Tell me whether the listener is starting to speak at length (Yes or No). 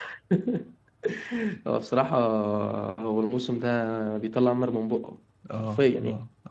Yes